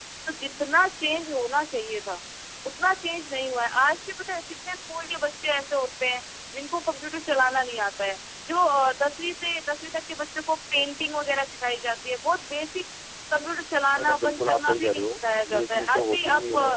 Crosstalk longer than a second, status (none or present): present